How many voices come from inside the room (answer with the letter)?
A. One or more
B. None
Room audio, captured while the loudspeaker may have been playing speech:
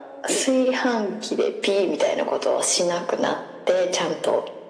B